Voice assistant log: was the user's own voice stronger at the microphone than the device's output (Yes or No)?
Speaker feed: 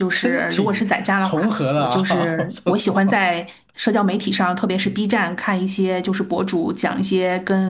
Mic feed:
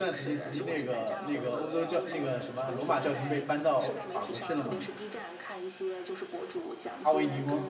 Yes